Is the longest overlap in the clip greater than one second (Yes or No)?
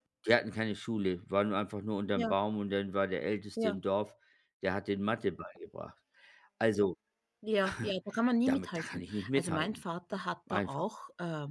Yes